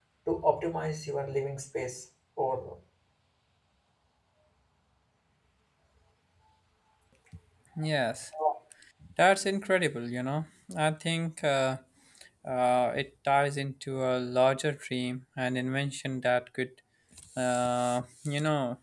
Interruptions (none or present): none